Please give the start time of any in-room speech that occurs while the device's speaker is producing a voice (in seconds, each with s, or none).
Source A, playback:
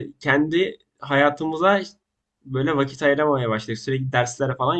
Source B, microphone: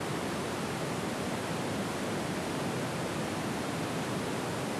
none